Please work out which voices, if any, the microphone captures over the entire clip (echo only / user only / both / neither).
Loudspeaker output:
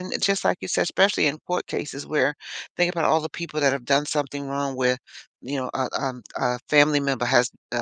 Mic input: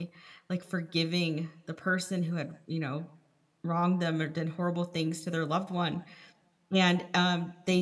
user only